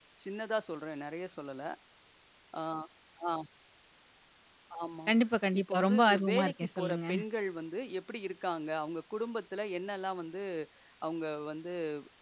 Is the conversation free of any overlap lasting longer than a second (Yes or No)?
No